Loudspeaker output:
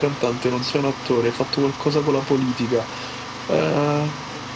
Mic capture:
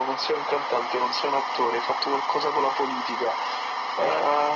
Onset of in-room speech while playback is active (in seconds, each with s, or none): none